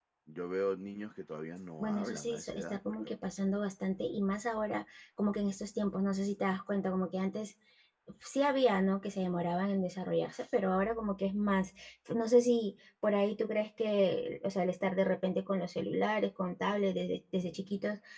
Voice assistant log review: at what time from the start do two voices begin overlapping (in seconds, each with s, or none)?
1.8 s